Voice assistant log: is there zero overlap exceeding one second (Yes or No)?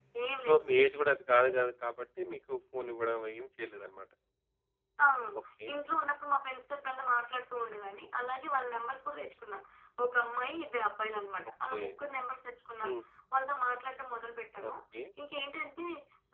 Yes